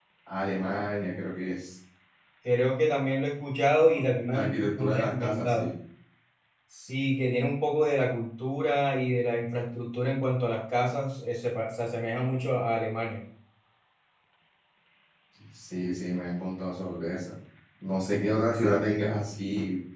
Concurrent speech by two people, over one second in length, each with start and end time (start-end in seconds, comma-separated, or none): 4.3-5.7